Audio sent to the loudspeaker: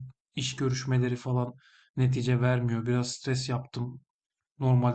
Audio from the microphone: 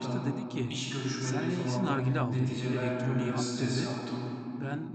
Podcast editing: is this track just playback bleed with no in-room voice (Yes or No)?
No